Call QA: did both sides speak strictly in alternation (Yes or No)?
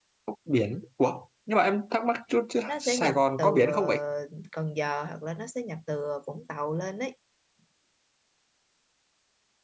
No